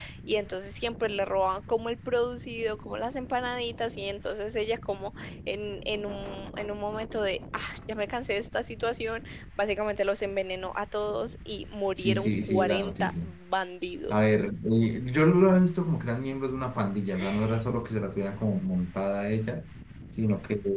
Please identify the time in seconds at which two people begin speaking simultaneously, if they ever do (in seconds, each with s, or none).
12.0 s